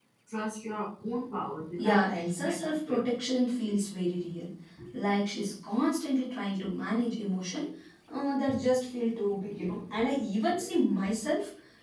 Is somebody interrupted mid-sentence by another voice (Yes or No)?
Yes